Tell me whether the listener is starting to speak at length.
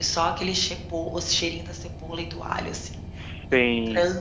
Yes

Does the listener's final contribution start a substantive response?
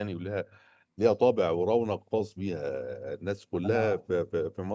No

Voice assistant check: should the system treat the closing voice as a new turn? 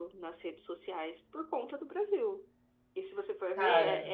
No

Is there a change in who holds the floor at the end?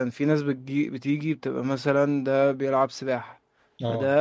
No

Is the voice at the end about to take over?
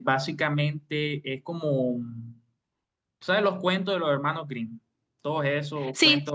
No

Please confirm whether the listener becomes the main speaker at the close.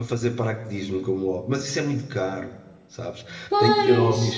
No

